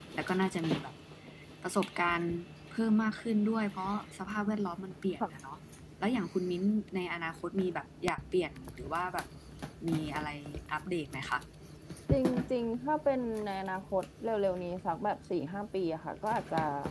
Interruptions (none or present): none